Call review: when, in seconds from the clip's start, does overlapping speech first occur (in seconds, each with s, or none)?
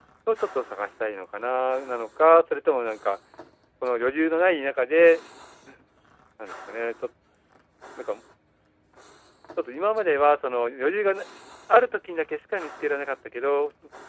none